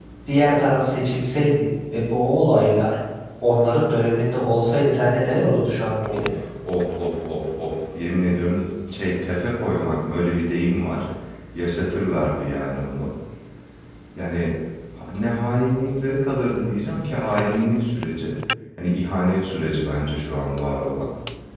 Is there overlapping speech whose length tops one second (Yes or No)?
No